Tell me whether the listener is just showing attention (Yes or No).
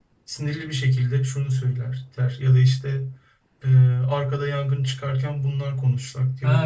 No